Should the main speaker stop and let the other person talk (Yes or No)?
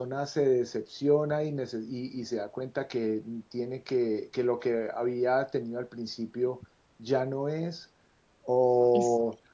No